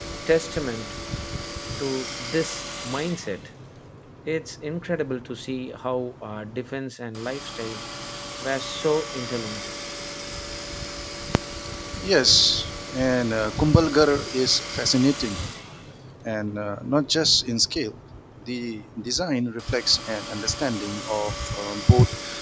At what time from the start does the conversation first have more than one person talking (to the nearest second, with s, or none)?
none